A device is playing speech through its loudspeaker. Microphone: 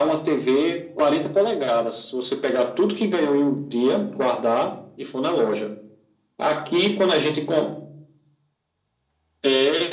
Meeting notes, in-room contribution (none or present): none